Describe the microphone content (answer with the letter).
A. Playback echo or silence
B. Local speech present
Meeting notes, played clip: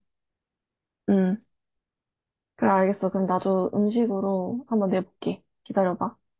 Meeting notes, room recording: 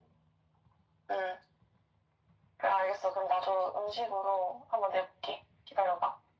A